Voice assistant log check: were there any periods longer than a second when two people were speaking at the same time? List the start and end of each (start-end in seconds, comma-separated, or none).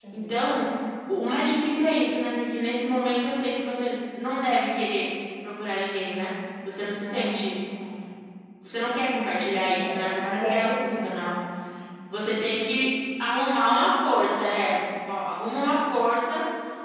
9.6-11.3